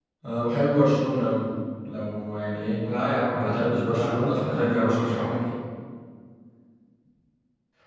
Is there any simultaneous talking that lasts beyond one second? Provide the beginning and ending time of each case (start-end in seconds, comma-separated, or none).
3.3-5.2